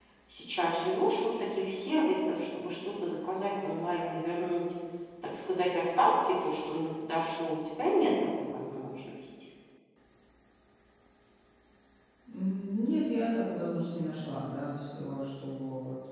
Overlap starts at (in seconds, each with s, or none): none